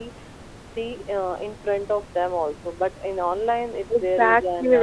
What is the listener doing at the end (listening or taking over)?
taking over